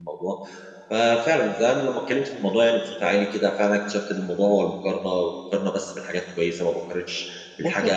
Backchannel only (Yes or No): No